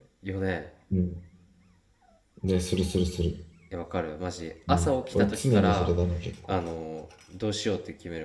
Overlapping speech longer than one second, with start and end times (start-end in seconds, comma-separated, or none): 4.7-5.9